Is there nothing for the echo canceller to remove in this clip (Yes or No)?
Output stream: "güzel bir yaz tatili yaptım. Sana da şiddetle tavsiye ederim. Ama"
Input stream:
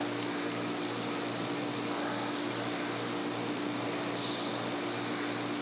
Yes